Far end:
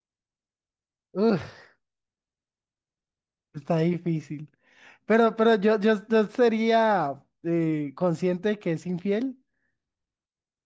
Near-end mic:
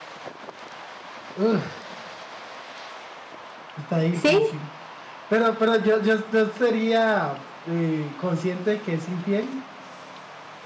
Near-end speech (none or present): present